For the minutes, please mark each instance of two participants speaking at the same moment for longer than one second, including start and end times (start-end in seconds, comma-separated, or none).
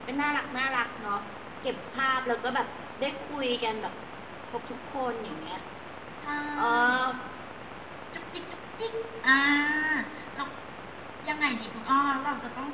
none